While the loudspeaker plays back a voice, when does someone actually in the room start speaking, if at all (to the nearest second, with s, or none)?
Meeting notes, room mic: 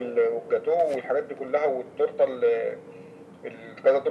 none